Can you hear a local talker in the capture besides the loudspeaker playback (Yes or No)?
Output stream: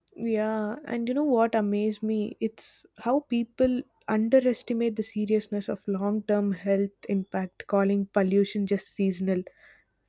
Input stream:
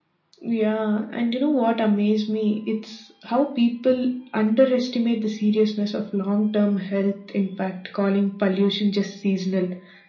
No